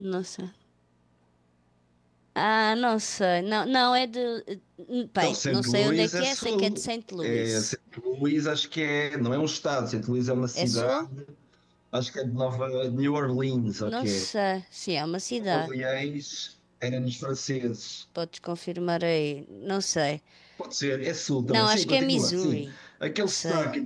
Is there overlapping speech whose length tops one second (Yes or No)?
Yes